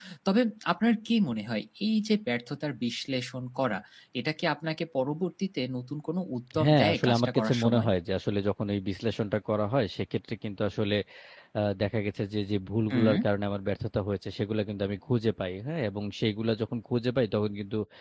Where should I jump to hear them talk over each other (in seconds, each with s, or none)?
6.6 s